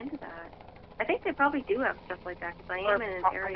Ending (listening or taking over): taking over